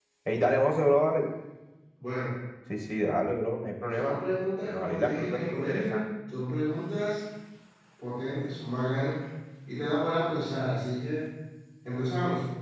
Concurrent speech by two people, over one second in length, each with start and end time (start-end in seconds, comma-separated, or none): 4.6-6.0